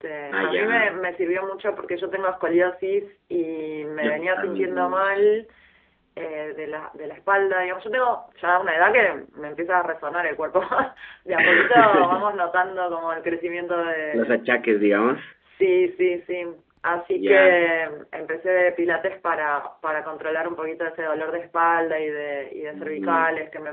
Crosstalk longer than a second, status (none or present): present